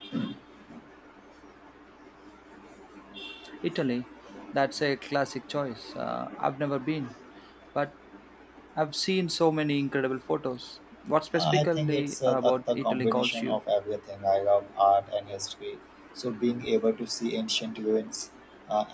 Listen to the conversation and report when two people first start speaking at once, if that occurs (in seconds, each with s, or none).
11.3 s